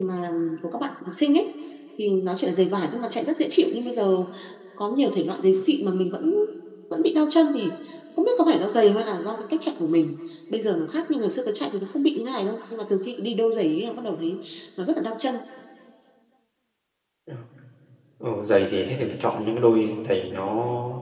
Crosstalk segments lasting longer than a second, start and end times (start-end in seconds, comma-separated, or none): none